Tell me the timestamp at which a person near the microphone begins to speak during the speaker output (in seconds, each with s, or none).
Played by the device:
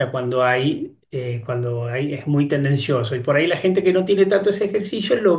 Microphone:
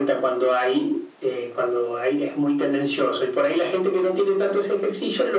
none